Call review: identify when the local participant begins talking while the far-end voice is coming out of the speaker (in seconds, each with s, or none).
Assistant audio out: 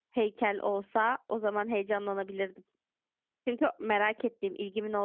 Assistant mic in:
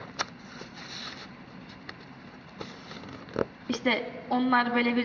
3.7 s